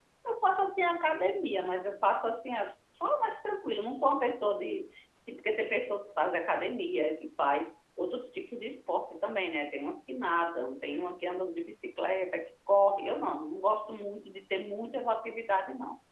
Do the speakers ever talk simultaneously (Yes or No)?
No